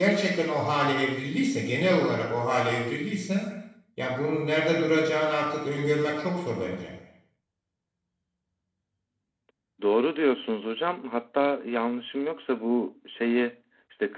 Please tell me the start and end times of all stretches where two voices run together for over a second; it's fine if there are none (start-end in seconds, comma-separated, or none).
none